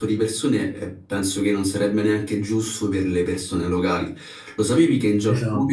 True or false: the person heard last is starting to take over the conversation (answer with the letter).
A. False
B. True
A